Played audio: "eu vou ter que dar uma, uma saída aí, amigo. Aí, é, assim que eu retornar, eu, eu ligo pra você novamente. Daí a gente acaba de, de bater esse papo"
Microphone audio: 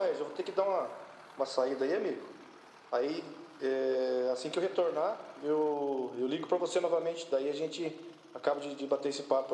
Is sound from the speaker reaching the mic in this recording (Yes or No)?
Yes